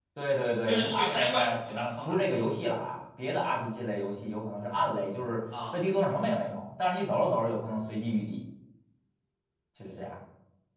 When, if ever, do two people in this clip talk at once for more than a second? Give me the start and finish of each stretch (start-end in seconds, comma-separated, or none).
0.7-2.2